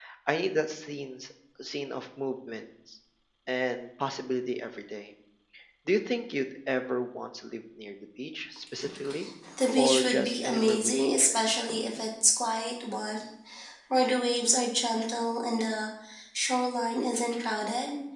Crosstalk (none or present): present